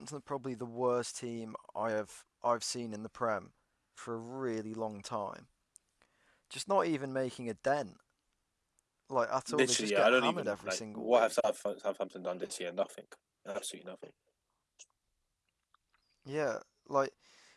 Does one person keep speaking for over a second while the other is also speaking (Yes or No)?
Yes